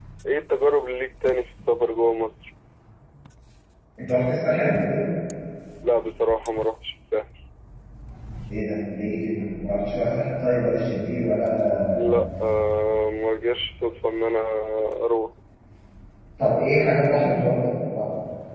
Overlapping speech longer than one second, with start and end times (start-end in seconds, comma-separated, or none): none